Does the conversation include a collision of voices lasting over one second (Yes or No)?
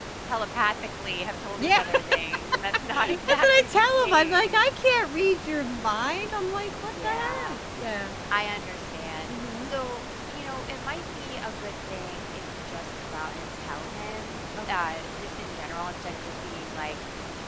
Yes